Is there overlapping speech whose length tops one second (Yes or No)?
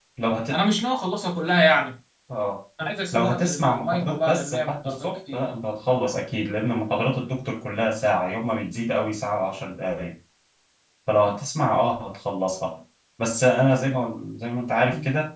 Yes